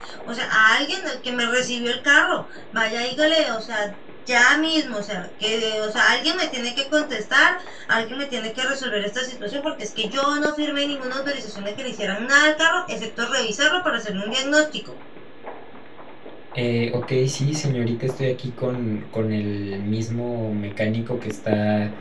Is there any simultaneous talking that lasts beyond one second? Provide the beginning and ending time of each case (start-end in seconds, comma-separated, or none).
none